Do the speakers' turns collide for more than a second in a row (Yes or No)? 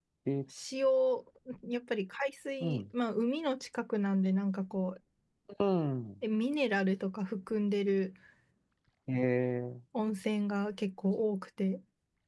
No